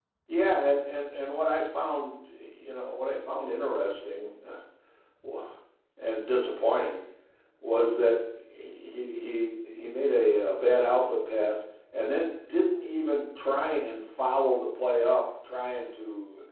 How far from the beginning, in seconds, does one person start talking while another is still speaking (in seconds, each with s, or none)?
none